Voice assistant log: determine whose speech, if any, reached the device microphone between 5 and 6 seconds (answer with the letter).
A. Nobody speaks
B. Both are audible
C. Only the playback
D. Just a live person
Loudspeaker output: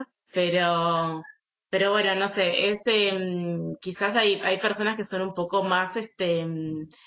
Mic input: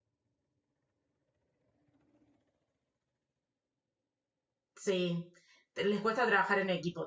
D